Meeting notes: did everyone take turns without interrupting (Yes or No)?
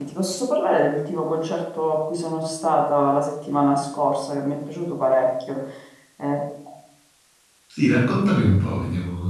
Yes